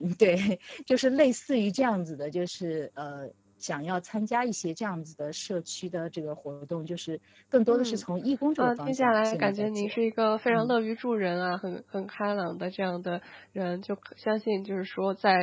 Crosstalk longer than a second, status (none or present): present